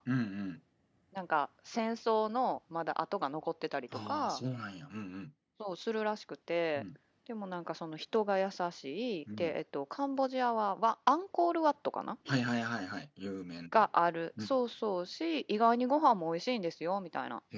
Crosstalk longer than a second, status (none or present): none